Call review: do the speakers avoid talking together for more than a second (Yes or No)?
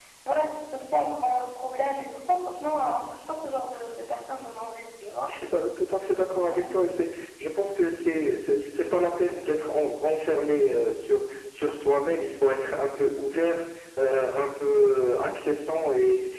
Yes